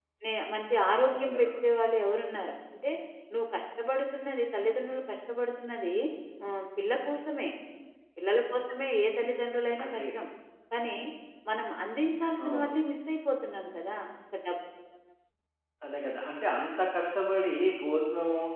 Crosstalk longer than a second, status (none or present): none